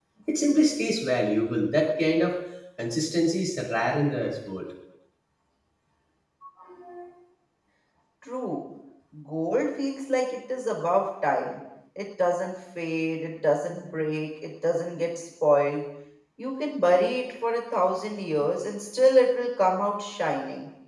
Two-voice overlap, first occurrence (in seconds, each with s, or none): none